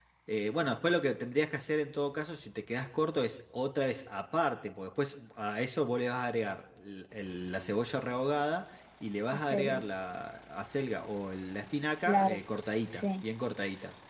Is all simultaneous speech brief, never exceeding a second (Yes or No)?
Yes